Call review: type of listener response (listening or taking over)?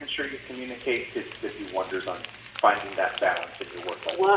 taking over